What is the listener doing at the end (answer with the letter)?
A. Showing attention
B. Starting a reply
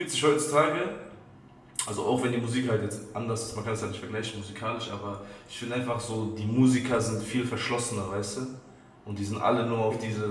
A